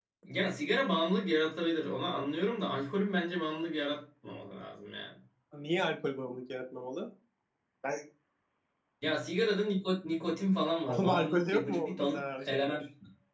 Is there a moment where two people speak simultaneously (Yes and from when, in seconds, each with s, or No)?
Yes, from 10.9 s